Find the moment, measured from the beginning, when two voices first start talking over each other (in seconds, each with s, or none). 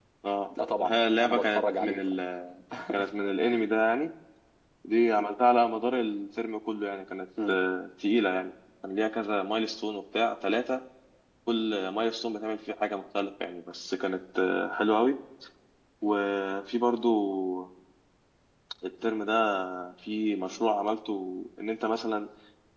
0.8 s